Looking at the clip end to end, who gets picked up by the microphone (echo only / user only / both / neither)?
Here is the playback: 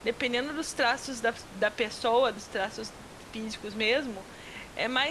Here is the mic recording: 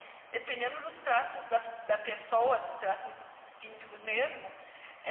echo only